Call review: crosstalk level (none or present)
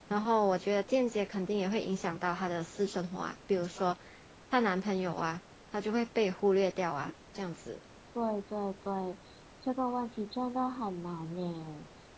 none